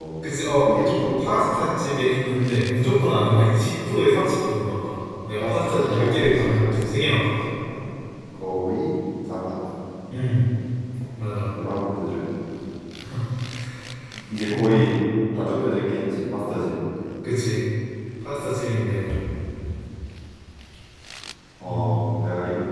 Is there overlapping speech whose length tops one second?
Yes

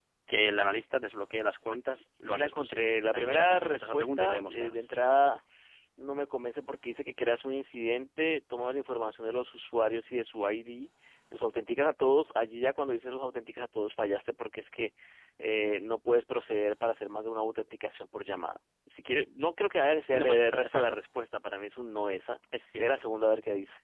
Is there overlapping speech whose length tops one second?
Yes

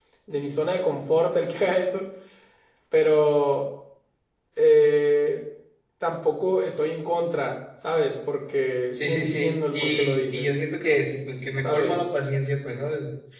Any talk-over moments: Yes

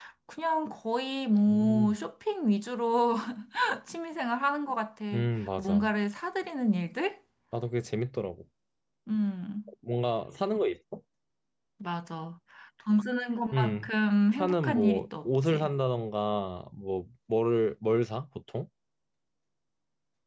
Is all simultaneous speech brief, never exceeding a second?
No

